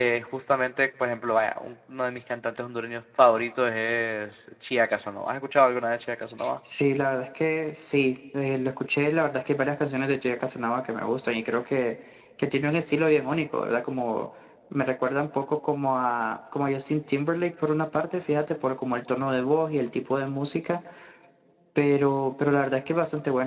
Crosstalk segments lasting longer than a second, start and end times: none

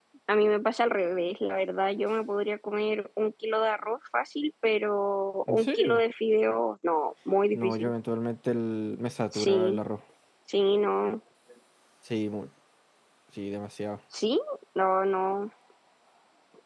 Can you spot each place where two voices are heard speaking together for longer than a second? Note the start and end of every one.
none

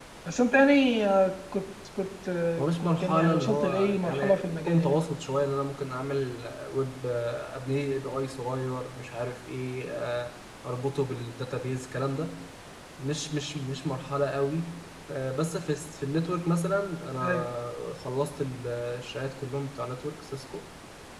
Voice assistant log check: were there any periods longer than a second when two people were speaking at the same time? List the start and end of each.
2.6-5.0

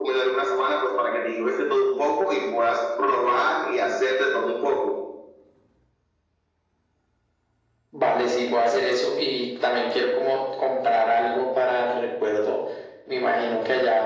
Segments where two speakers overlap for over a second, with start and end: none

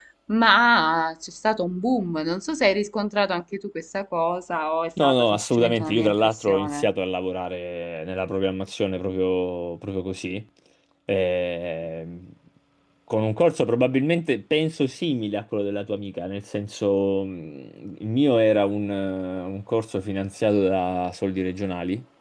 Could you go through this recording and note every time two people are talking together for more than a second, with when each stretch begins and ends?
5.0-6.8

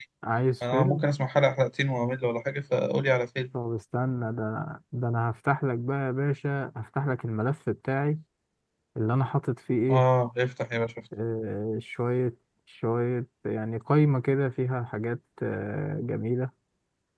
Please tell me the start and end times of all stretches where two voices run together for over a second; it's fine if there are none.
none

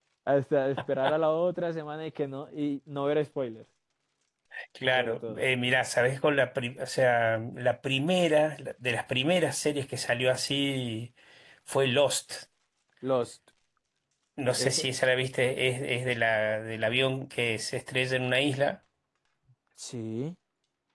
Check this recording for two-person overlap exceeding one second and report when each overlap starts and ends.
none

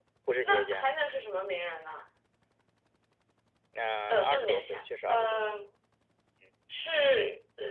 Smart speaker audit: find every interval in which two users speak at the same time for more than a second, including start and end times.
4.1-5.4

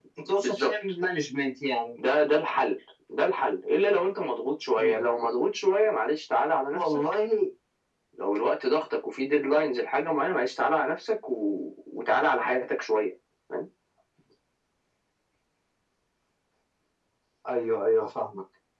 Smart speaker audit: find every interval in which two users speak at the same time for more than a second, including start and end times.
none

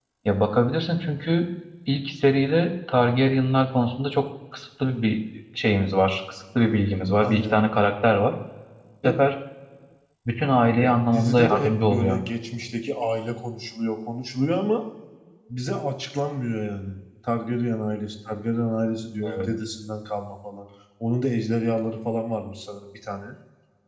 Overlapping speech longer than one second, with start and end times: 10.8-12.2

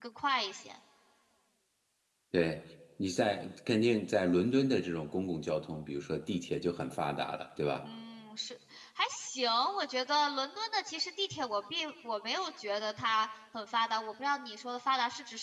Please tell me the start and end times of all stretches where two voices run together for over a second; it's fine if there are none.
none

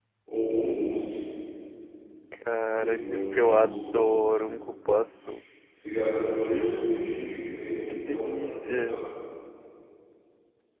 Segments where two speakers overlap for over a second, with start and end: 2.7-4.5, 6.5-9.0

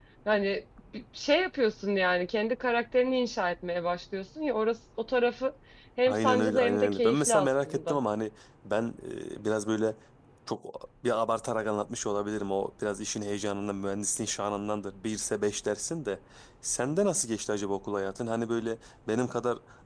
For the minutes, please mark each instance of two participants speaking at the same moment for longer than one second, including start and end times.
6.1-8.0

